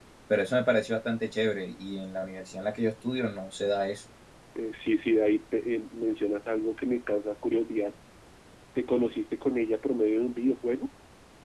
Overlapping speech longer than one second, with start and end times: none

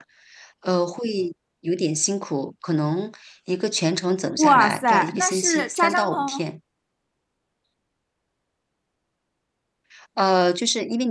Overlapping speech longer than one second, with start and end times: 4.4-6.4

